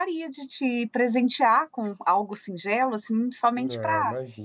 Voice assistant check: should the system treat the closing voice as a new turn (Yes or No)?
Yes